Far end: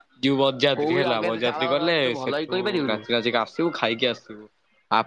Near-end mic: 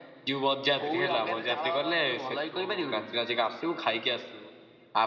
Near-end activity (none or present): none